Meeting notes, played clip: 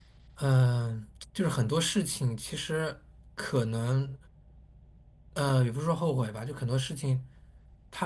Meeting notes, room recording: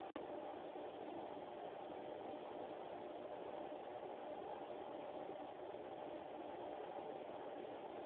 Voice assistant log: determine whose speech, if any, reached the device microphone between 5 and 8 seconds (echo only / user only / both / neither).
neither